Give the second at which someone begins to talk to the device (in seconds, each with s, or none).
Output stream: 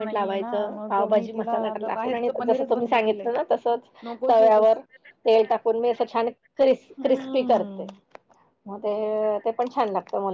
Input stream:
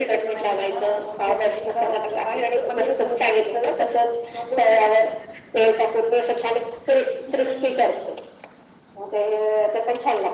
none